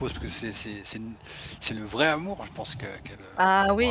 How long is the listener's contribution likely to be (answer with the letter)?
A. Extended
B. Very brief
A